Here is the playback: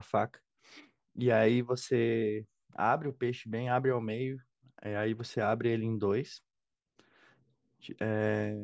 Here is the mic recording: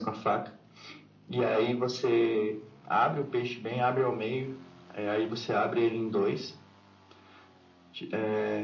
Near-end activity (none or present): none